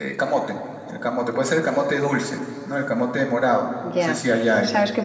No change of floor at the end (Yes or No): No